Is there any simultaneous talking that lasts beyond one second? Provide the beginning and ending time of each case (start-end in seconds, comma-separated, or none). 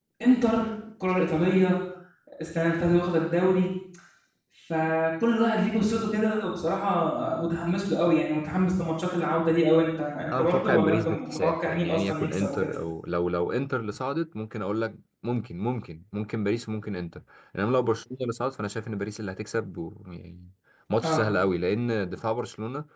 10.3-12.8